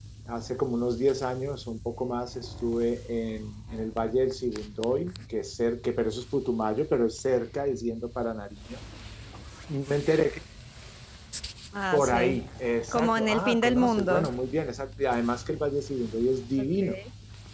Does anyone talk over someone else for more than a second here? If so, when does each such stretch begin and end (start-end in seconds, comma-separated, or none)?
12.9-14.3